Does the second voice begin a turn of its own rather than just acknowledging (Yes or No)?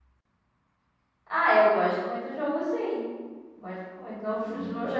No